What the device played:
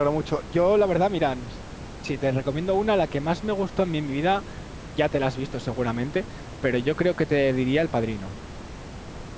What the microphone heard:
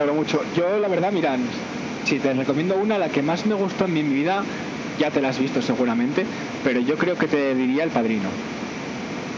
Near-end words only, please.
none

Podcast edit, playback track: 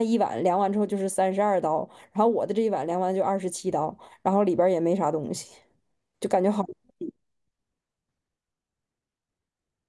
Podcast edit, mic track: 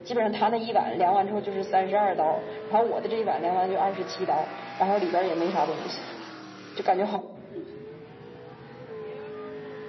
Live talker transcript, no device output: none

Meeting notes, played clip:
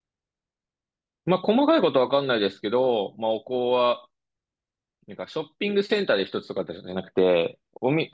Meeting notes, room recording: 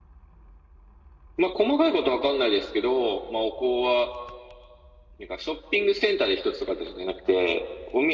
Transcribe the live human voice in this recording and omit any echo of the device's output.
none

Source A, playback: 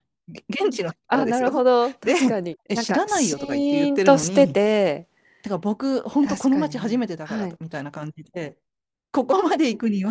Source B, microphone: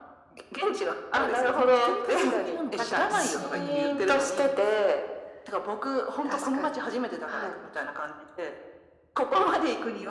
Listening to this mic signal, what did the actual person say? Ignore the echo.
なんか一人旅好きなのかと、なんか勝手に思ってました。

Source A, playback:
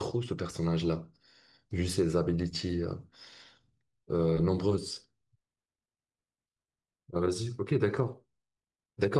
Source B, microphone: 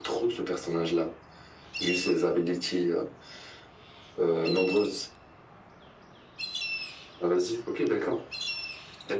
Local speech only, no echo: none

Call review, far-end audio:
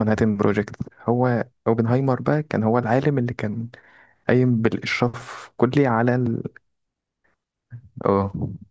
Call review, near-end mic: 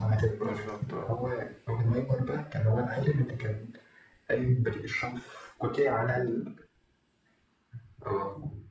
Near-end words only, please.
بالظبط اه

